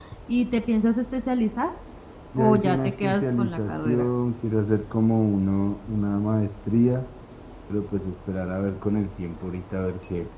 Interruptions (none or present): present